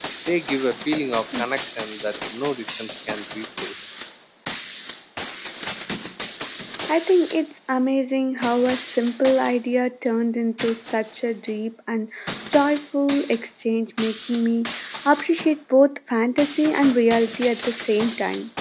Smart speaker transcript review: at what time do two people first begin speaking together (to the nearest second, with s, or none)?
none